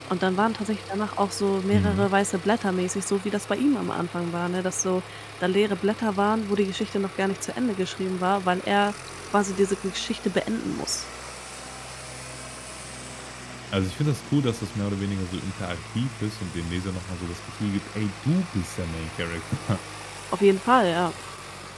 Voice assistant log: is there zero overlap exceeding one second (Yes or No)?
Yes